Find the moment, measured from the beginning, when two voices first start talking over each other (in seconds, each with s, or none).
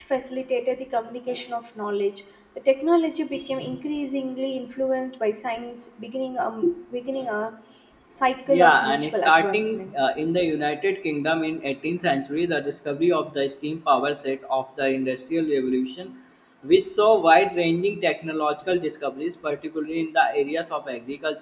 8.5 s